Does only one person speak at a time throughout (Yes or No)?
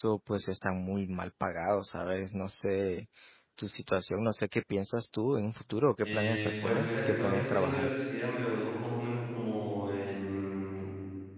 No